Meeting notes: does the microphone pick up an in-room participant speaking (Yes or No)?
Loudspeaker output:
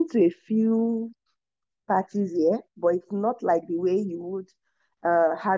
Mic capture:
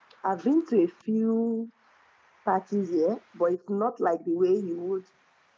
No